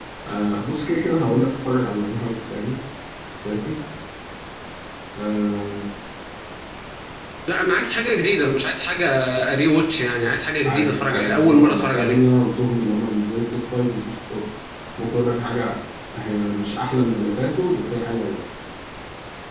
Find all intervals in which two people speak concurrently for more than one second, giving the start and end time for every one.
10.7-12.2

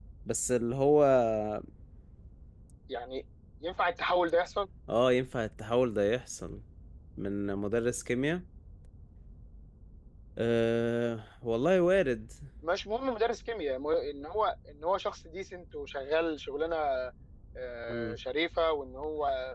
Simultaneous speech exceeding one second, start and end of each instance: none

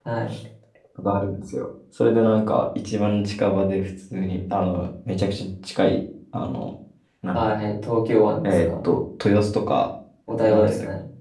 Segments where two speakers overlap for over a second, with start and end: none

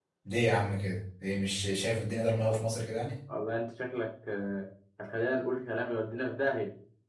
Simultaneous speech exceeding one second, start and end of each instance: none

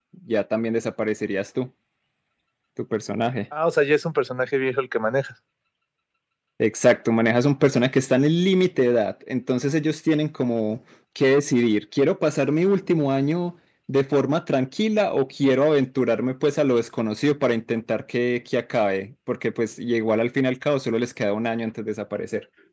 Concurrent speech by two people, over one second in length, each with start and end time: none

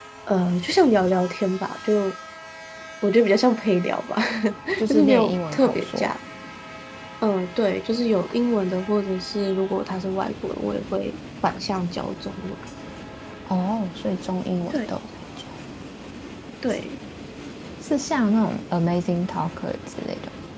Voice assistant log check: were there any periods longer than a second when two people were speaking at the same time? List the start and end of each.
4.9-6.1

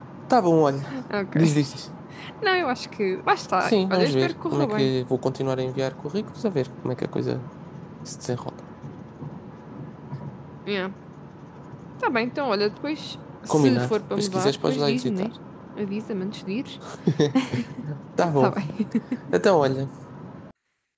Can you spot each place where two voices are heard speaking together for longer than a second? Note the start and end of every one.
3.6-4.9, 13.5-15.3

